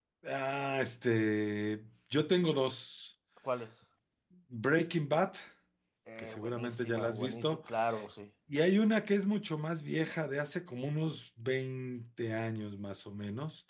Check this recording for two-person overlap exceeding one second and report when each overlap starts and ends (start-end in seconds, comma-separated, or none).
6.2-7.6